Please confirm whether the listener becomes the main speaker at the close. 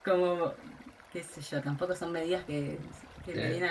No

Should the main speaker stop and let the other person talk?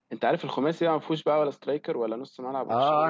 Yes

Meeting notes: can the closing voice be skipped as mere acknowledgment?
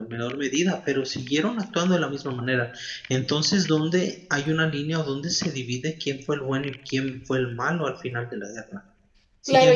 No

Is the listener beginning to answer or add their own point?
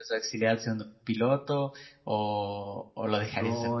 Yes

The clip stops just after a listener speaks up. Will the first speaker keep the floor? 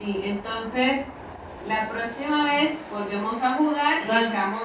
Yes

